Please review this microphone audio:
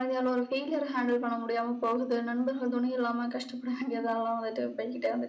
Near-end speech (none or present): none